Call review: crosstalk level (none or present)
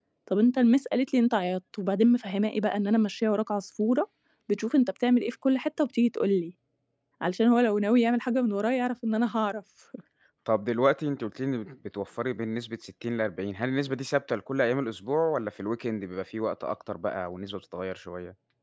none